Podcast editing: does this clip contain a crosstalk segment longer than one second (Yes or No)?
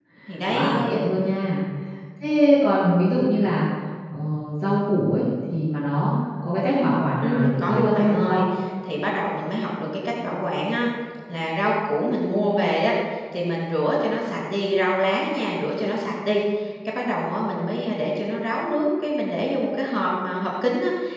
Yes